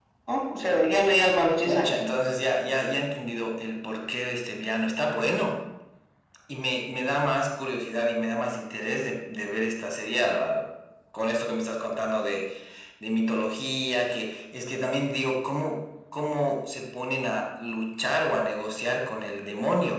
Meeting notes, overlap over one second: none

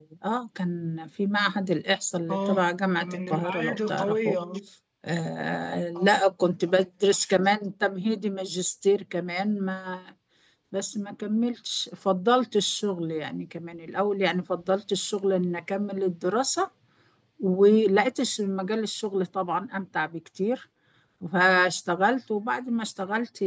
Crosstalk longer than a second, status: present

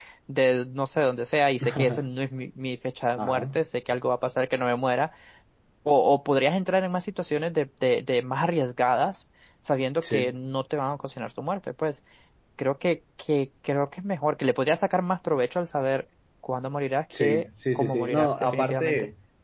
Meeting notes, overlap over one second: present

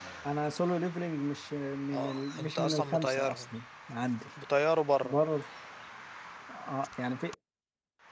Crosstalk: present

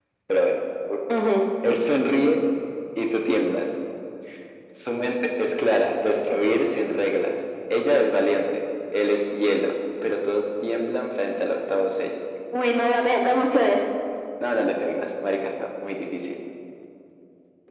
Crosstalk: none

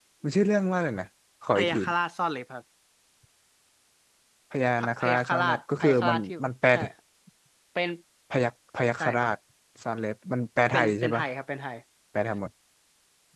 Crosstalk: present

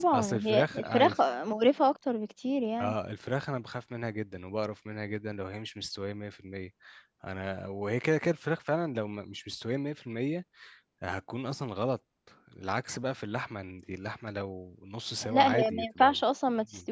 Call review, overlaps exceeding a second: present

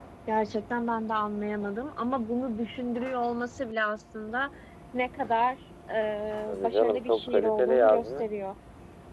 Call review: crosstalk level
present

